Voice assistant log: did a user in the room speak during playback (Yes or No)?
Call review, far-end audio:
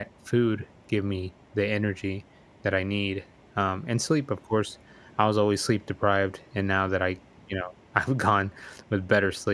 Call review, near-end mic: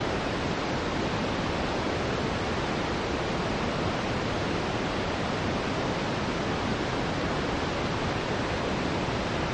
No